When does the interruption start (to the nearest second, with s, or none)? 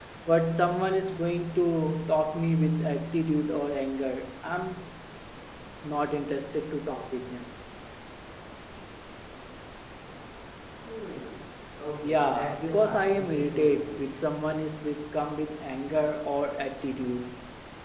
12 s